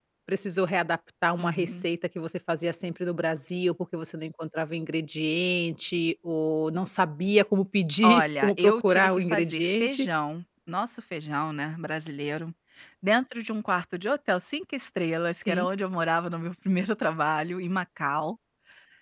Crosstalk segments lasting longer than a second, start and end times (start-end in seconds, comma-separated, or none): 8.0-10.1